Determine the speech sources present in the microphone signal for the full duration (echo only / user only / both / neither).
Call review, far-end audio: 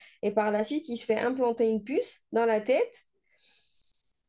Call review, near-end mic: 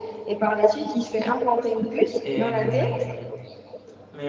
both